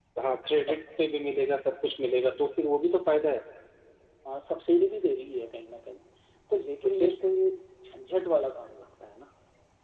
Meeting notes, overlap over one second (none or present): none